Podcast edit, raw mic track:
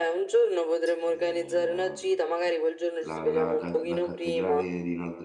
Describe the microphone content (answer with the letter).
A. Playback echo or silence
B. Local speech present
B